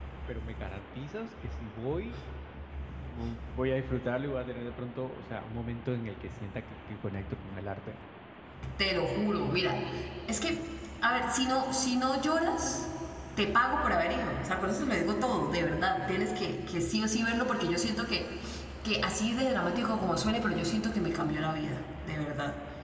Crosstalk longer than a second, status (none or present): none